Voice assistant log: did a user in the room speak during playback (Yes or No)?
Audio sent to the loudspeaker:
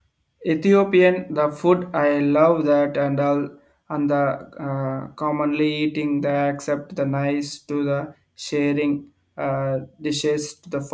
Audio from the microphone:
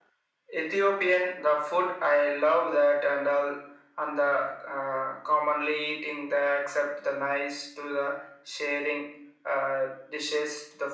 No